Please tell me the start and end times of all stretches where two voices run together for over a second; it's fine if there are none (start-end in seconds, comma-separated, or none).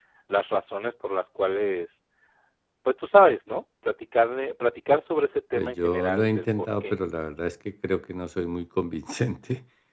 5.6-7.0